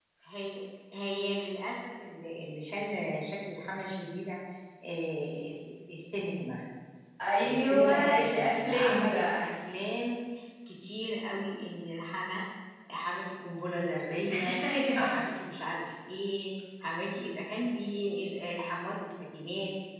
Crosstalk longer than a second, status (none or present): present